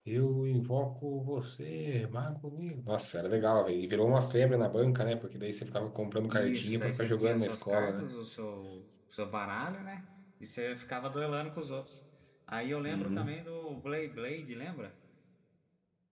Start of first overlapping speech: 6.3 s

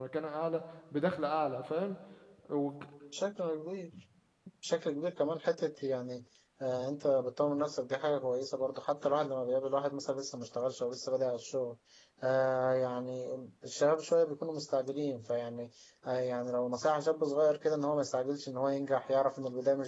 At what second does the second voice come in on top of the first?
none

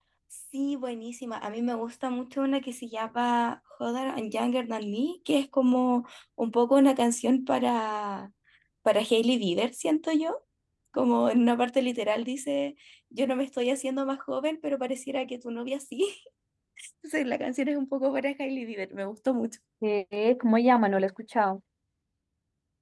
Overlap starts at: none

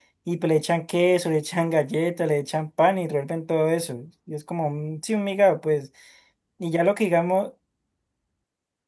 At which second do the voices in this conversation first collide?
none

